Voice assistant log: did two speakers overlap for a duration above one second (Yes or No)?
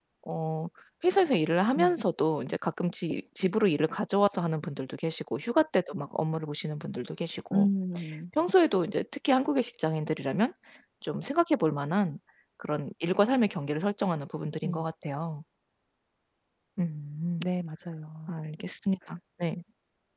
No